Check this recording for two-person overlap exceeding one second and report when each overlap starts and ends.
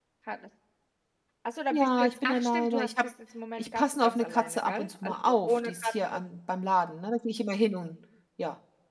1.7-3.0, 3.6-6.2

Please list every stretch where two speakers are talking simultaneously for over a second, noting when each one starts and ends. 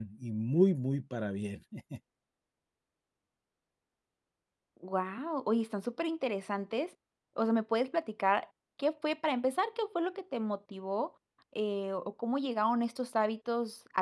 none

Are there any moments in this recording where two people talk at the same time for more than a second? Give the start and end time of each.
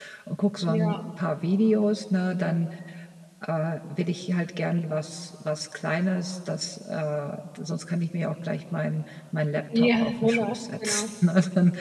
9.8-11.1

